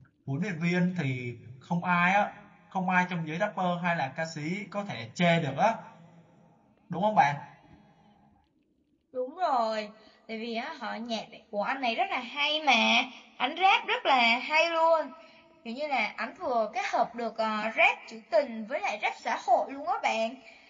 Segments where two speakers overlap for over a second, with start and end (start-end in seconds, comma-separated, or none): none